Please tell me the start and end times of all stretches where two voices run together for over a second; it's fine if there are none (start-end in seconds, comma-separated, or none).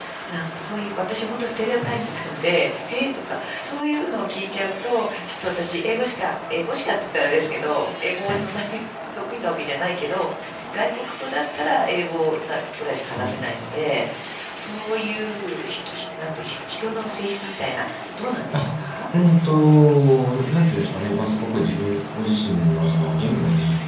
none